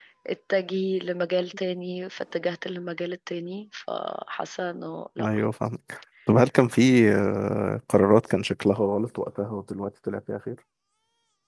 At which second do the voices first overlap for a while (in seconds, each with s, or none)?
none